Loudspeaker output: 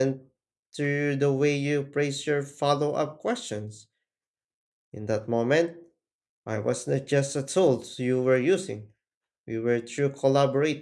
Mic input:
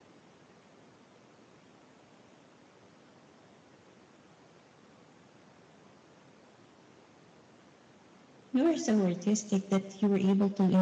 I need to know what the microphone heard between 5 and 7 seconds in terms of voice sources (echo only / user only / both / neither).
neither